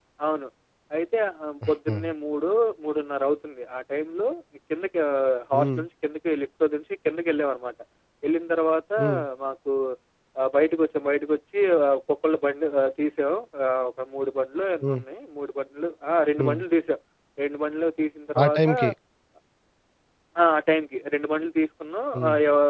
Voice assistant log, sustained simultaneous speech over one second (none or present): none